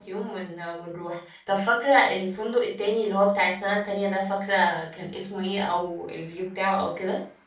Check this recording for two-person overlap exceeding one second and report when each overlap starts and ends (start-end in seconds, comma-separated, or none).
none